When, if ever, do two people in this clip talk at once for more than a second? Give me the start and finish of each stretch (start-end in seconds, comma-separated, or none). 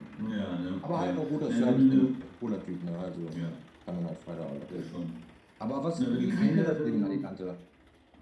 0.8-2.2, 6.0-7.3